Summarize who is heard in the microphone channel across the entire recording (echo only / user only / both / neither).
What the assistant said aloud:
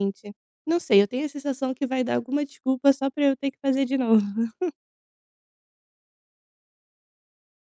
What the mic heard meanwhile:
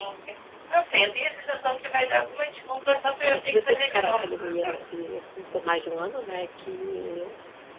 both